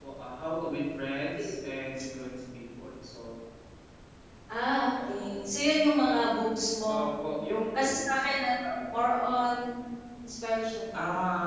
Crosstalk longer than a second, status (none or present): none